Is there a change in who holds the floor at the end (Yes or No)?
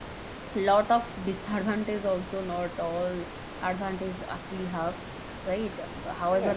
No